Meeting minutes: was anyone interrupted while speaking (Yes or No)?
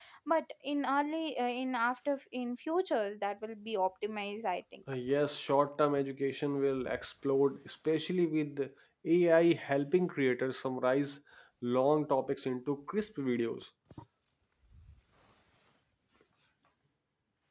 No